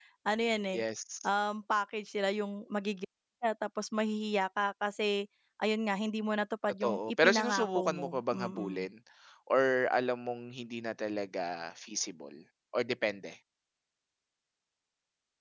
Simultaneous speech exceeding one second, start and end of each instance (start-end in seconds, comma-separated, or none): 6.8-8.8